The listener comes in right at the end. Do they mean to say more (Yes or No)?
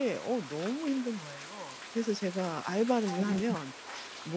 No